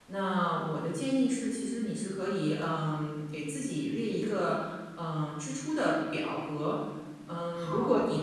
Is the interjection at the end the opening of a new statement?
No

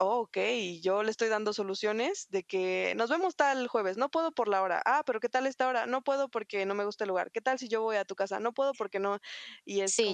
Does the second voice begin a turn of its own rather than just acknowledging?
Yes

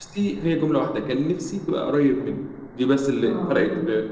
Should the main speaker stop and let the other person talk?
No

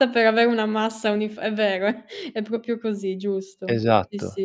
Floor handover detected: Yes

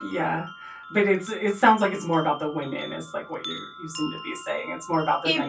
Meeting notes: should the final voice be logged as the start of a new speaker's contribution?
Yes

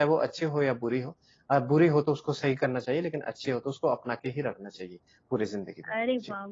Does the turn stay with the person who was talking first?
No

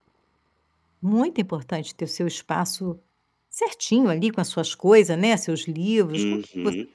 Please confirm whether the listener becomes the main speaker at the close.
Yes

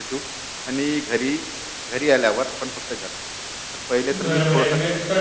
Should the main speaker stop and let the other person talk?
Yes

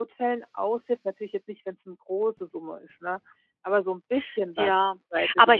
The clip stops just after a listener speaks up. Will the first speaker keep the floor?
No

